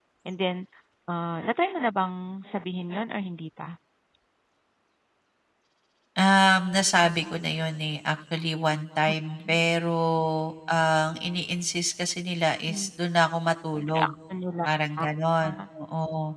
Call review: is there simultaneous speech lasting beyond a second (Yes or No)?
No